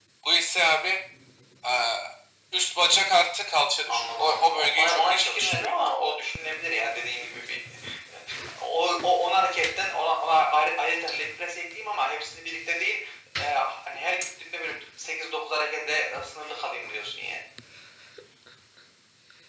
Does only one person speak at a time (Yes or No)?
No